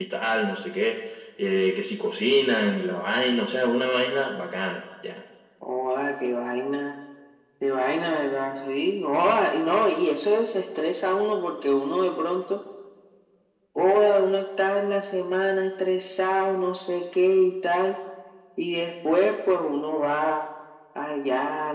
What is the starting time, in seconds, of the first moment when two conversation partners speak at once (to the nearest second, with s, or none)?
none